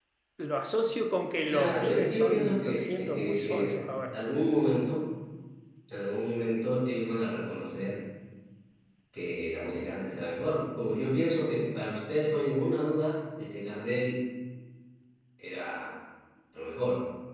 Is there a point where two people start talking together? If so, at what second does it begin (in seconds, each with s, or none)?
1.5 s